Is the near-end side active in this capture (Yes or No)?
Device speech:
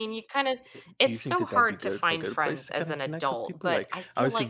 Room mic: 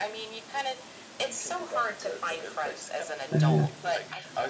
Yes